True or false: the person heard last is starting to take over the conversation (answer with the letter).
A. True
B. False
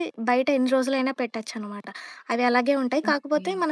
B